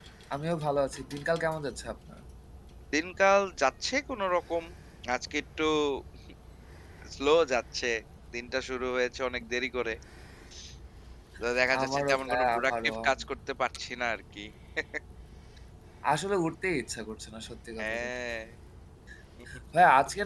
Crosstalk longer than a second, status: present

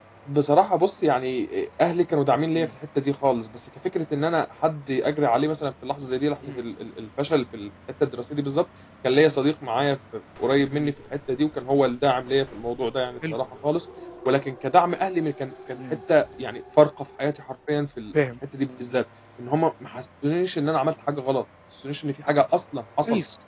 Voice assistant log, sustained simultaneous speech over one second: none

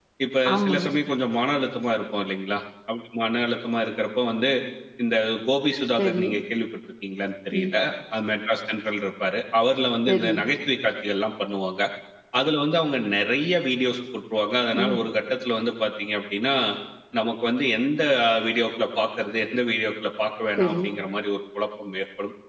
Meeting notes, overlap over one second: none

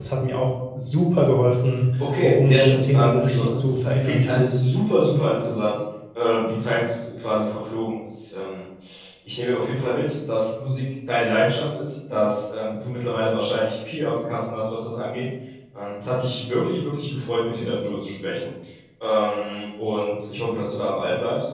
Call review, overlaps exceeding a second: present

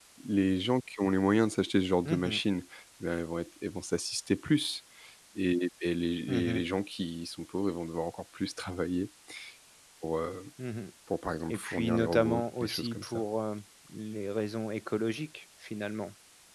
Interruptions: present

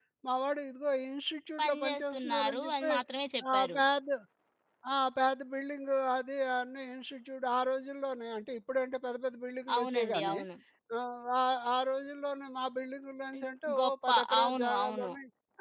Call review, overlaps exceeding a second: present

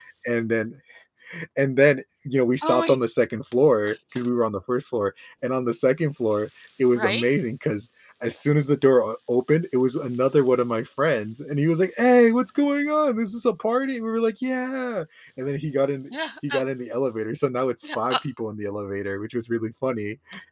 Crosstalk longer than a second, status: none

